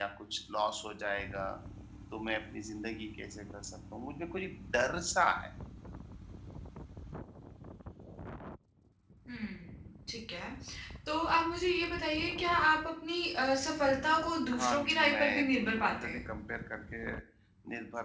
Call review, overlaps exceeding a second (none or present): present